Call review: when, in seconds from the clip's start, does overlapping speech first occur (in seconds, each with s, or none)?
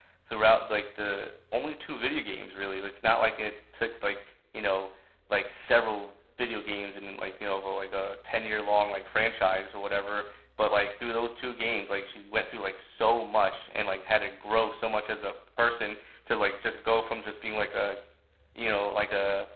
none